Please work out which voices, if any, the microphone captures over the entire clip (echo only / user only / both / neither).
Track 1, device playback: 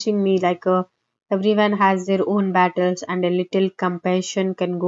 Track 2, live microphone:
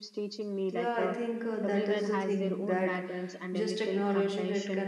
both